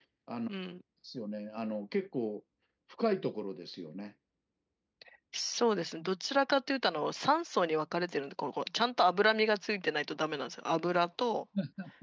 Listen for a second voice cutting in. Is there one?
No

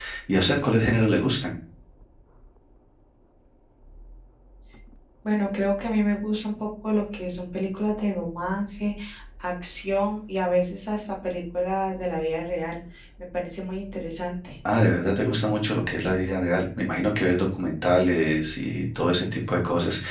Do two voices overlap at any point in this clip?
No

